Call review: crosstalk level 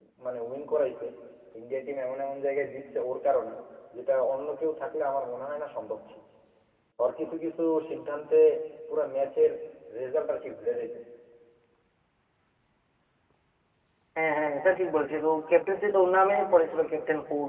none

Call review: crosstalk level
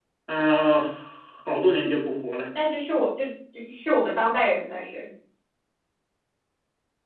none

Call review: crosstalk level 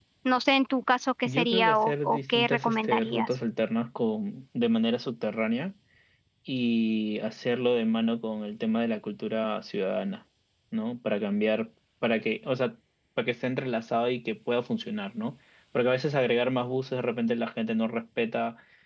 present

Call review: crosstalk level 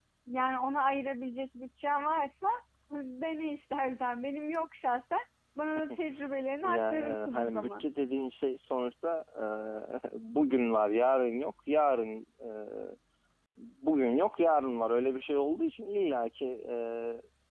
present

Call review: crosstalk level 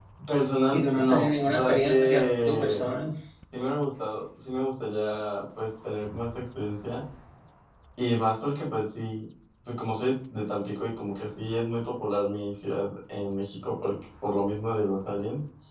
present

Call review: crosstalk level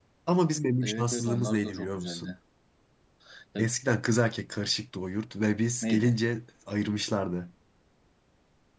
present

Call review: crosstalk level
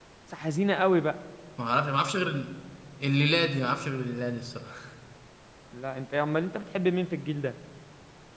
none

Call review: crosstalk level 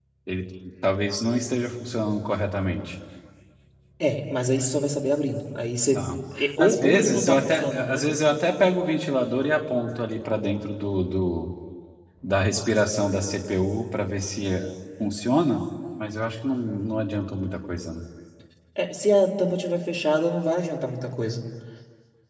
present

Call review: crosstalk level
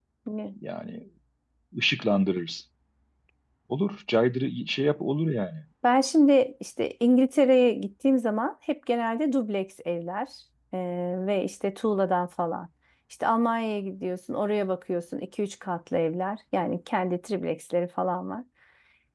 none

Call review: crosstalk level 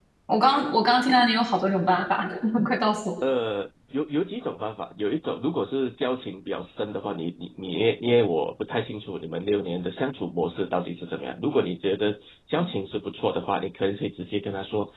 none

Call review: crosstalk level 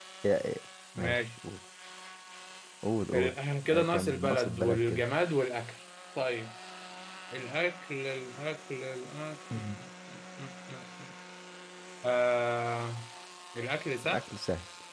present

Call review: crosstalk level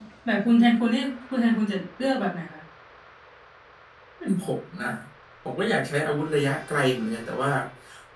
none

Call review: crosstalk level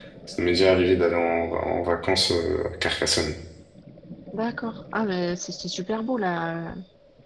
none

